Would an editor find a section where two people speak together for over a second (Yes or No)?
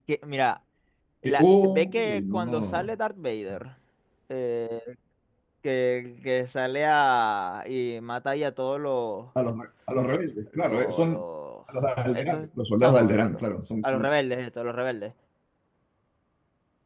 Yes